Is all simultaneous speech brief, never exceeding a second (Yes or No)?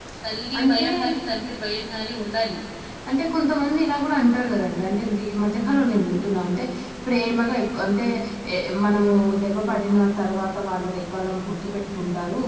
Yes